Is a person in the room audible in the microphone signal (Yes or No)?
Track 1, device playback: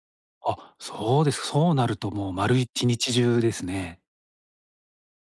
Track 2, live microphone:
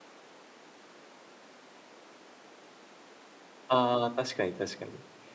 Yes